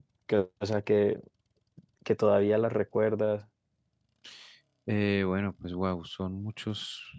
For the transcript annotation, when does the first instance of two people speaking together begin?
none

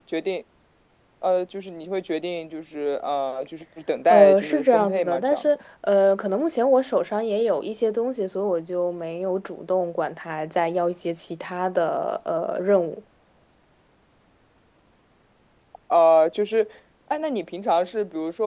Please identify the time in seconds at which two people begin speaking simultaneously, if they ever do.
4.1 s

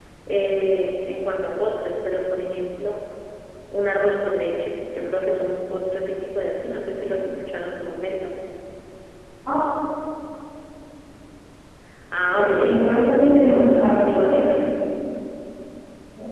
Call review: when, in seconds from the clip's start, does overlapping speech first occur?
12.3 s

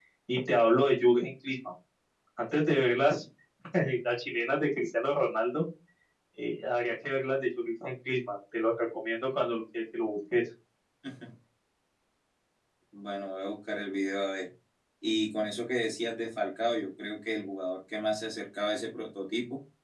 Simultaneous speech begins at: none

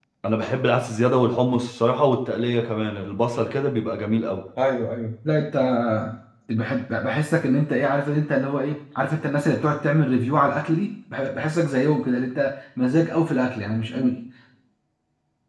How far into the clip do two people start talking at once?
none

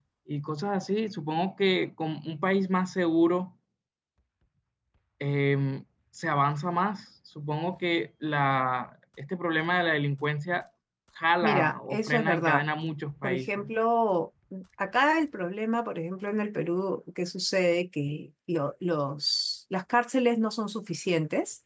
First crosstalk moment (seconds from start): 11.4 s

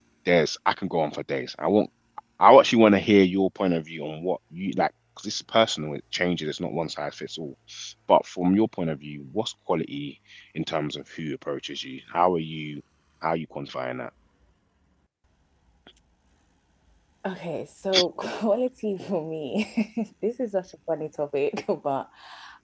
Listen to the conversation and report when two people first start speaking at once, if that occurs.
none

